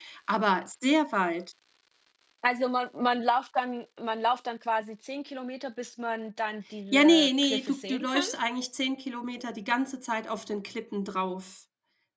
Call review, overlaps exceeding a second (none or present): present